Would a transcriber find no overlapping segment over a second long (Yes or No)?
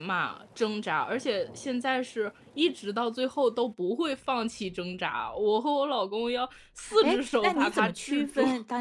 No